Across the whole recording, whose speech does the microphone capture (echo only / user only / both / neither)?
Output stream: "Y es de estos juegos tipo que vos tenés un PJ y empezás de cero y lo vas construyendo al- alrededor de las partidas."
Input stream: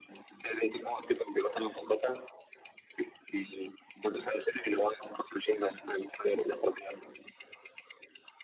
echo only